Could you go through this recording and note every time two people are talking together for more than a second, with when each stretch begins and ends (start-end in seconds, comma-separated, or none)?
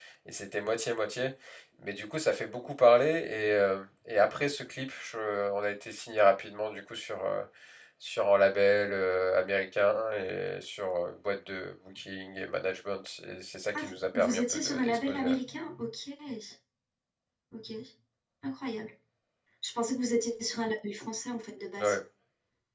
13.7-15.4